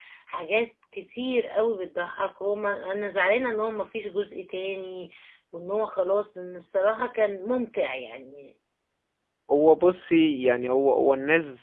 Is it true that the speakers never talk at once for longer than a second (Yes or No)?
Yes